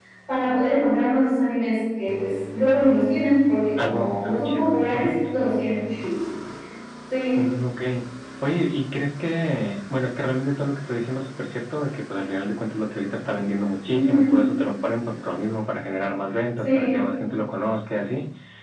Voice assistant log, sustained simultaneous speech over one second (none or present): present